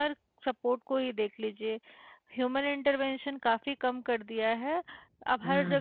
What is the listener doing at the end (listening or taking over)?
listening